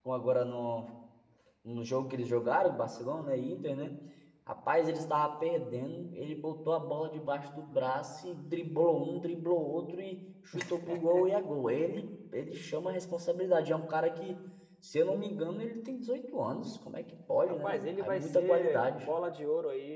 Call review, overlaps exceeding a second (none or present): present